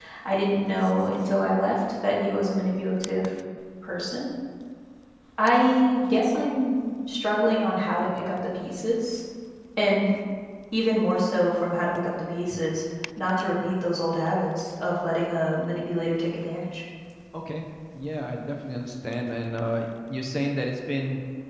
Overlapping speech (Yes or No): No